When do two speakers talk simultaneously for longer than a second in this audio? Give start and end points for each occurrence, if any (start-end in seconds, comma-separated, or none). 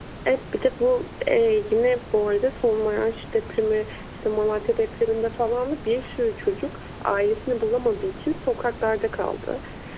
none